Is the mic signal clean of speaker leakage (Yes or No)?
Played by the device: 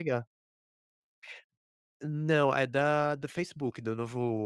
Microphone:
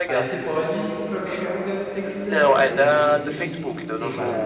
No